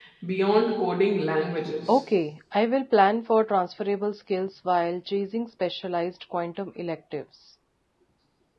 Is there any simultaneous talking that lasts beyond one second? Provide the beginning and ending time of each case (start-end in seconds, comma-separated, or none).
none